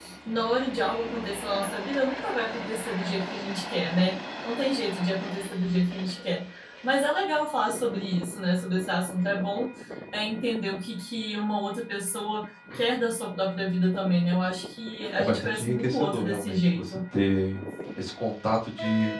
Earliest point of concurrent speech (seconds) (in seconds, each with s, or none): 15.2 s